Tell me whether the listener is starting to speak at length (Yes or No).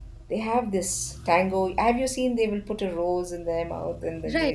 Yes